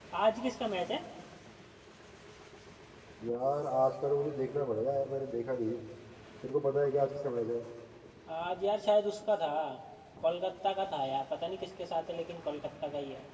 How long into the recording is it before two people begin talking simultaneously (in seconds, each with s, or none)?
none